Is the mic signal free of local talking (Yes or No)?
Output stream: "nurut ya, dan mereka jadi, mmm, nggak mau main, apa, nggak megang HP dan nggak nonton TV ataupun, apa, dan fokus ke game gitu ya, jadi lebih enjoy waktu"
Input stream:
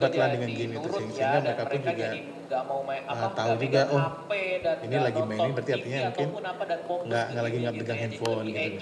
No